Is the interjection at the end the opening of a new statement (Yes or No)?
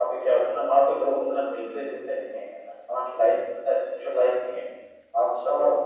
No